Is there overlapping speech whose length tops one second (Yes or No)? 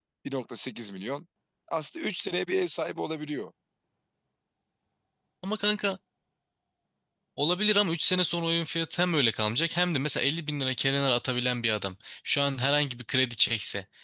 No